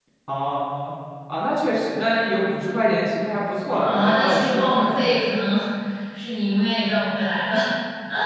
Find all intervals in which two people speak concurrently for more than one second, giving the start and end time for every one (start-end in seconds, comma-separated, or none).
3.8-5.1